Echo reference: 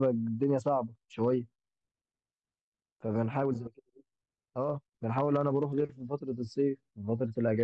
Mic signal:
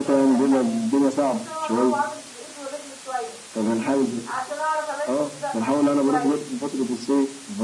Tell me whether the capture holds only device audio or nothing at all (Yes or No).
No